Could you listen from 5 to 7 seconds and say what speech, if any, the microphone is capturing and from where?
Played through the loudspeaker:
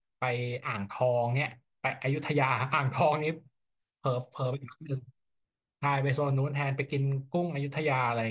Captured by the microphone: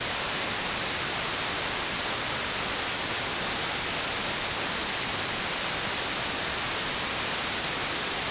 neither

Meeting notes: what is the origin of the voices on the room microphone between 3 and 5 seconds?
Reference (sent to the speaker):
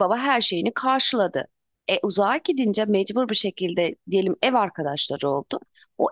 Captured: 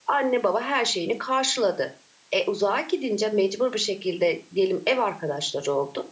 echo only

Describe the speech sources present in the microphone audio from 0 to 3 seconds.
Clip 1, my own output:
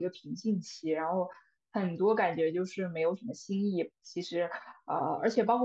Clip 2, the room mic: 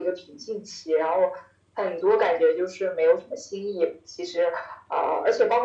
echo only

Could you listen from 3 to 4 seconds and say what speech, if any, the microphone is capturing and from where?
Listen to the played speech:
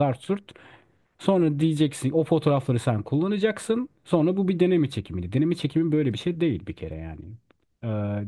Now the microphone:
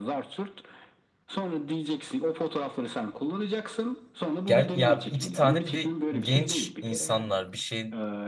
echo only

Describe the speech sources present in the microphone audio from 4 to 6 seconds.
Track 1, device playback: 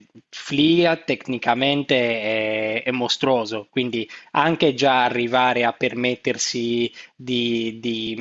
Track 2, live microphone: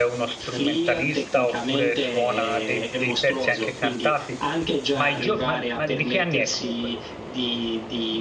both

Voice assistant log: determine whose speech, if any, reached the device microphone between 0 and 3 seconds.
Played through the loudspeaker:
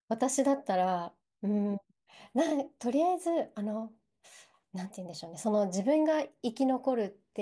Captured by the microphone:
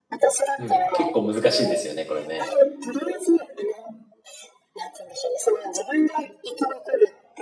both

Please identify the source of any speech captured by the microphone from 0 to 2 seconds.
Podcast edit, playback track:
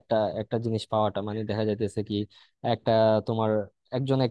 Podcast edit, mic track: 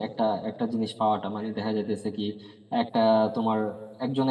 echo only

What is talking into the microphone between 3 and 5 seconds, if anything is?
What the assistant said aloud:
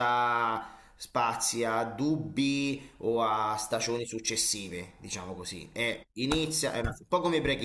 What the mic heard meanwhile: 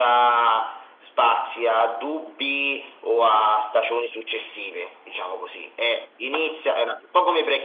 echo only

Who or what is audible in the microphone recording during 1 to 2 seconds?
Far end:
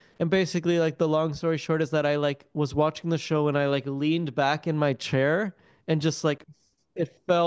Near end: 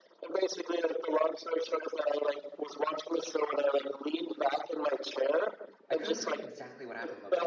echo only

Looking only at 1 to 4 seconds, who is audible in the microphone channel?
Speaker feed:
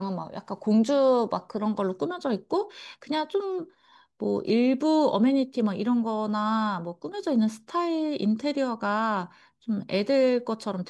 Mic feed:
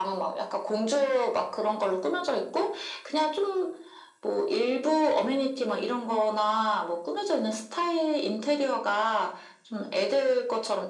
echo only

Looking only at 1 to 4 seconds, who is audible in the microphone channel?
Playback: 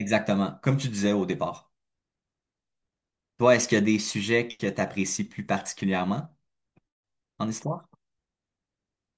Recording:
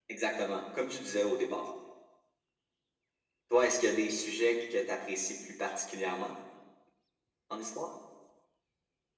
echo only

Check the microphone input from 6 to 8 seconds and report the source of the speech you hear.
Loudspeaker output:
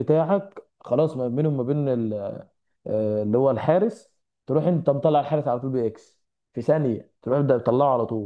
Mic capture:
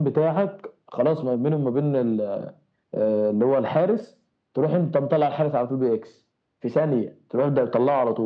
echo only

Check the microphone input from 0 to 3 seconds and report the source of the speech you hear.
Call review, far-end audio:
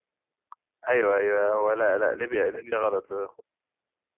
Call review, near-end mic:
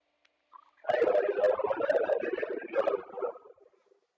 echo only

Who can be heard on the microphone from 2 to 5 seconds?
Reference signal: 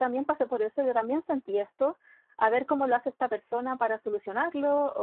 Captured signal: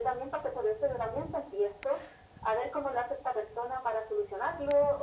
echo only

